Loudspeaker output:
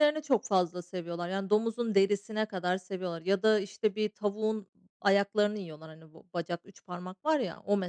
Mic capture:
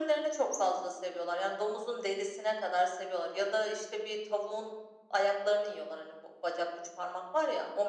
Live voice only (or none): none